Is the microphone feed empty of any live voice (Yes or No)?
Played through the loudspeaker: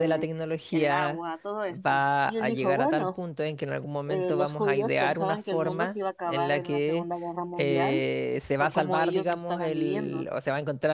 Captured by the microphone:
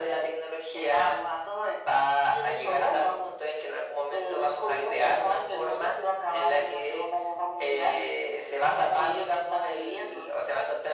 Yes